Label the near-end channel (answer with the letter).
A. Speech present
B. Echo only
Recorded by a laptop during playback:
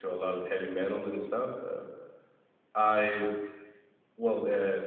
A